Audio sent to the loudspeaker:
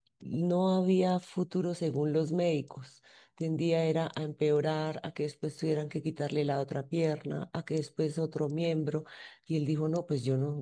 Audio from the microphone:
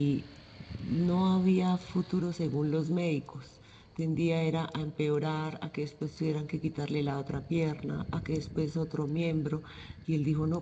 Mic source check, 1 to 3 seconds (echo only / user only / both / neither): echo only